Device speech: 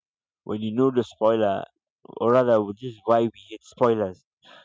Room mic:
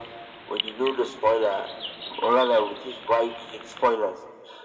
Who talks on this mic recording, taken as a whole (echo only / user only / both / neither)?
echo only